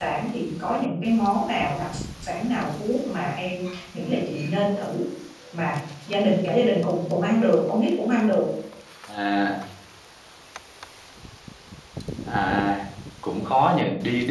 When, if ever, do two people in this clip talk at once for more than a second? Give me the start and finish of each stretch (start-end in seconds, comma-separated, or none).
none